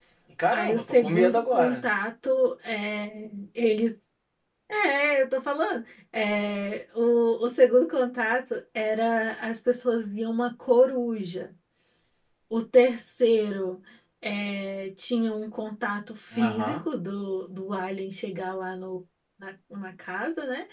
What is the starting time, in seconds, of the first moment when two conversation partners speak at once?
0.5 s

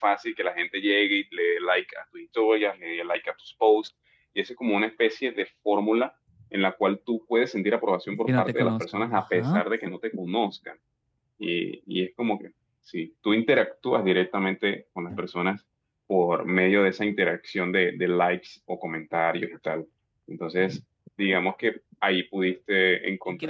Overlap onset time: 8.3 s

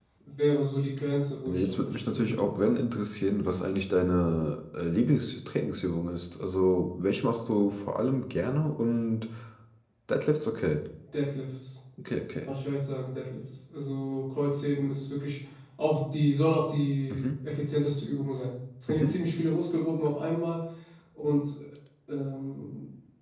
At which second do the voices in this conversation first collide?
1.5 s

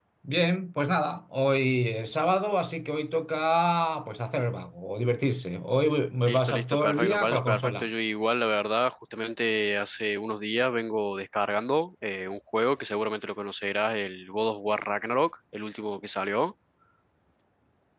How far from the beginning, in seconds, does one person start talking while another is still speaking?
6.3 s

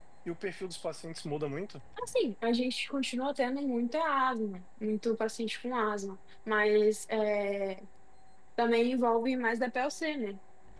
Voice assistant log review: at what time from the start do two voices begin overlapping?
none

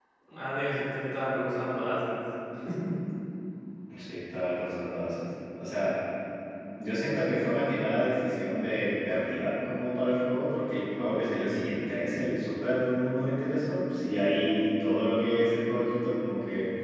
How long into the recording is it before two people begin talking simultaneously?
none

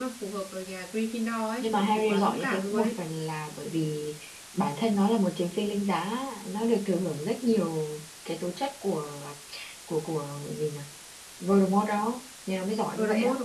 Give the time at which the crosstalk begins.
1.6 s

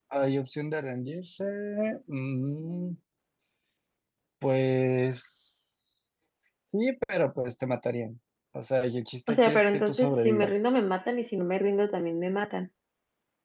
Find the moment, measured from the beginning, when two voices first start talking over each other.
9.3 s

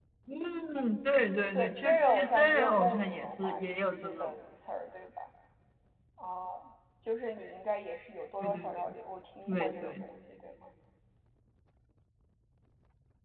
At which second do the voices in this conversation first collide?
1.6 s

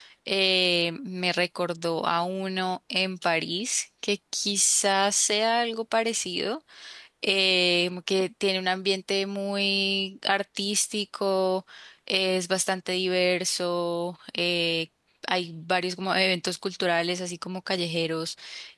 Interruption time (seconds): none

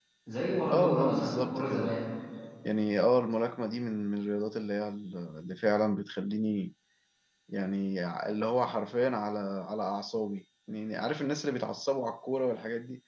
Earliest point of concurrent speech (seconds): 0.7 s

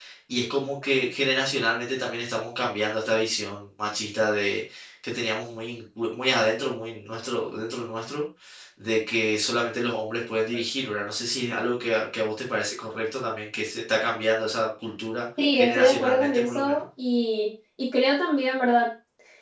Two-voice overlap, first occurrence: 15.4 s

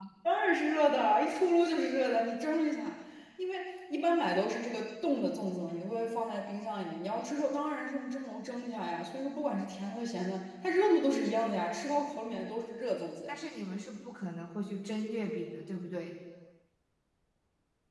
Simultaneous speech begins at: none

